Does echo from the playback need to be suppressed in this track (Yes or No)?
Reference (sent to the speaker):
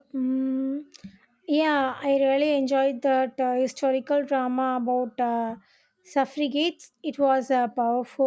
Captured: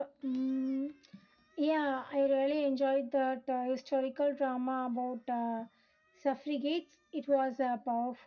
Yes